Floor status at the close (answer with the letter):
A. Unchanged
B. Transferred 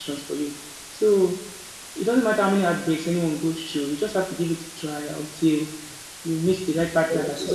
B